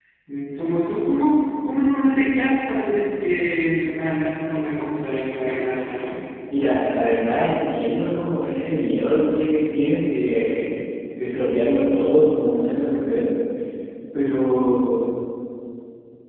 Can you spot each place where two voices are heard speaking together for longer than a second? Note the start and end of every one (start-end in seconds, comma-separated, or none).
none